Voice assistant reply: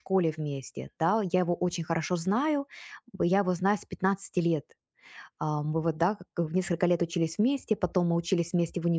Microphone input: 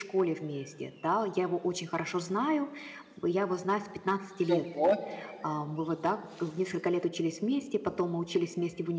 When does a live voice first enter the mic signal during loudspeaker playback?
4.5 s

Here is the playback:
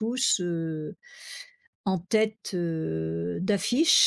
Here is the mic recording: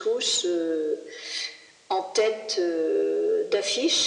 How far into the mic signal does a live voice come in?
none

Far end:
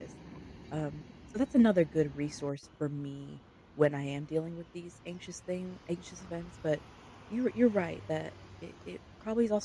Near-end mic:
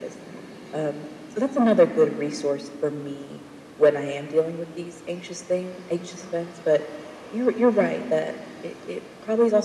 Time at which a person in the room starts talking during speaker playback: none

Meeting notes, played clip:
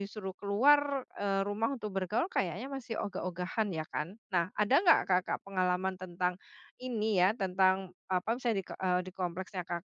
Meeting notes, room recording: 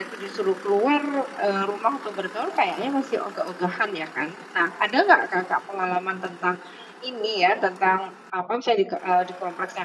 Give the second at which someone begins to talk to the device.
none

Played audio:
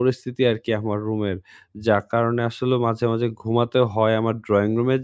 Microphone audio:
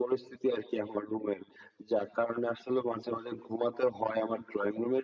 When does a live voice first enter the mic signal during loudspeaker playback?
none

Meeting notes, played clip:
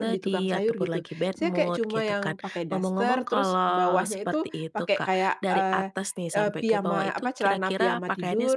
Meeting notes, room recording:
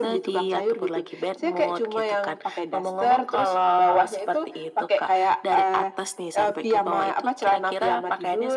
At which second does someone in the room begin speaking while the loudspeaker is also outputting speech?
none

